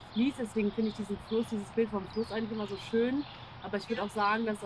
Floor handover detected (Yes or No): No